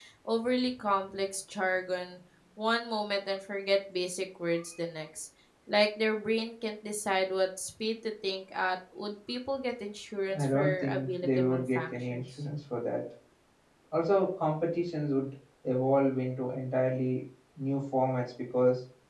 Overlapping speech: Yes, from 10.3 s

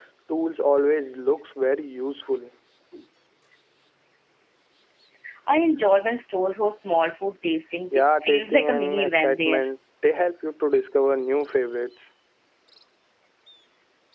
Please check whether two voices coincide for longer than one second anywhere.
Yes, from 7.9 s

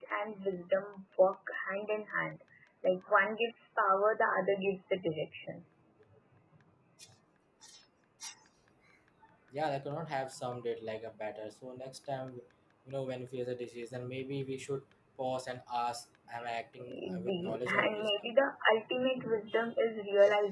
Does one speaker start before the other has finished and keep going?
Yes, from 16.9 s

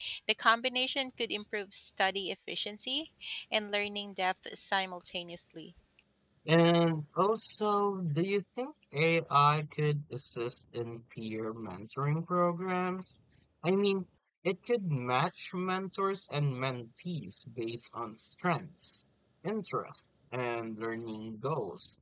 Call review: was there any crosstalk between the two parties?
No

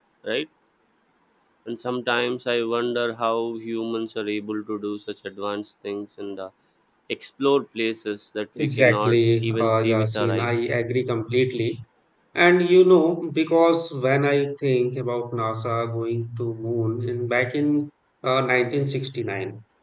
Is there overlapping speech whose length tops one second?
Yes, from 8.6 s

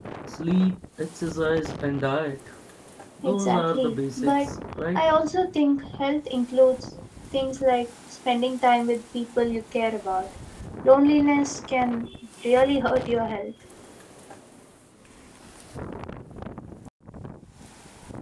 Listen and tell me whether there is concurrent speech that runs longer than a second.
Yes, from 3.2 s

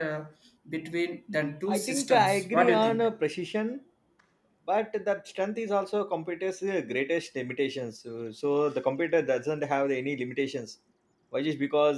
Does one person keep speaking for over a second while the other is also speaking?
Yes, from 1.7 s

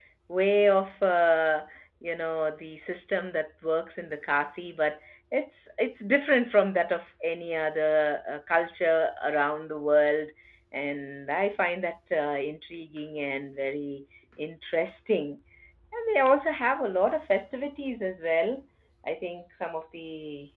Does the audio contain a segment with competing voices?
No

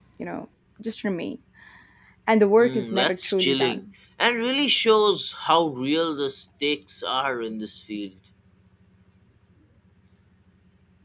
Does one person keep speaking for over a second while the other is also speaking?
Yes, from 2.6 s

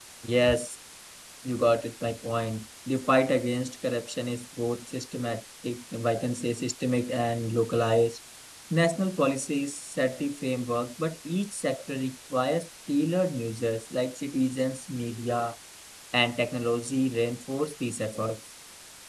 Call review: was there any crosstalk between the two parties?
No

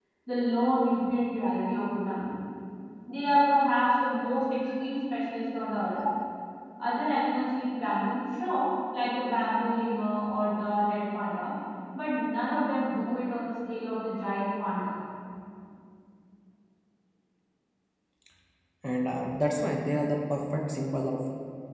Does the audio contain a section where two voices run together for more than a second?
No

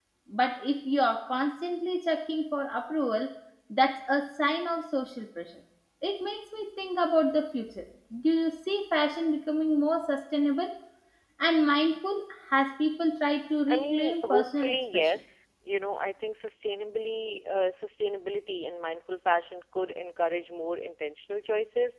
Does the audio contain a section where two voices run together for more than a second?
Yes, from 13.7 s

